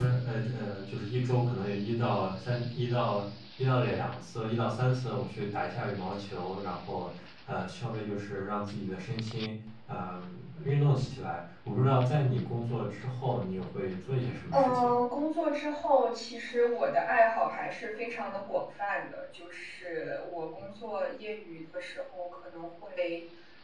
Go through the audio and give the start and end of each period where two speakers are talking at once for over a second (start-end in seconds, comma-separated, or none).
none